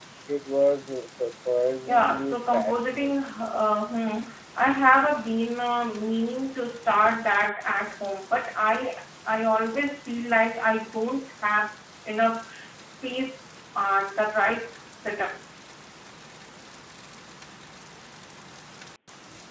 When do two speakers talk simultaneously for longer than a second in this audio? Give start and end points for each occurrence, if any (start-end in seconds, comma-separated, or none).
1.9-3.1